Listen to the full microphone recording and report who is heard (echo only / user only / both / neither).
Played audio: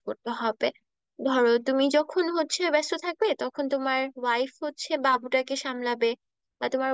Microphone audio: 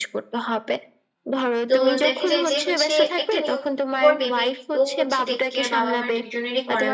both